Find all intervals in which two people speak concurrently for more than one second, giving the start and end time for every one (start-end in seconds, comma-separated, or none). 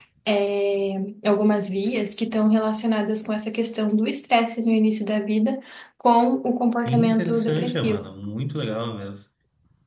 6.9-8.1